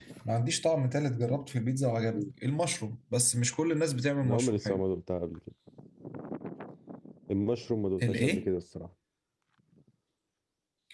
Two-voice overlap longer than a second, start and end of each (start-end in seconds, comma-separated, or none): none